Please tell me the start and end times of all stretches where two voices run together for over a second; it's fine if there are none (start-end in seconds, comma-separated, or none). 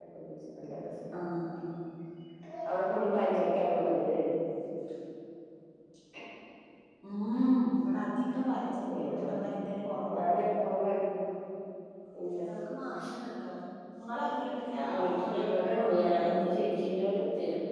14.9-16.4